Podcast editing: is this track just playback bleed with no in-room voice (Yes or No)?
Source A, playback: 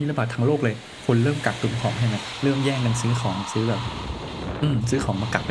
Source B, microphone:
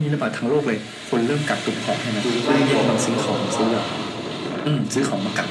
No